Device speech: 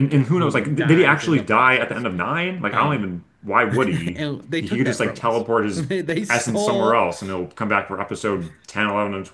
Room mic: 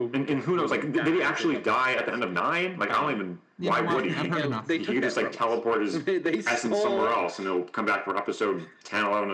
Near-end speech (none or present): present